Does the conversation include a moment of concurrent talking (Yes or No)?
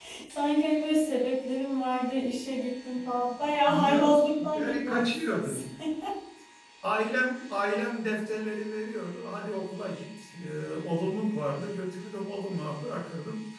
Yes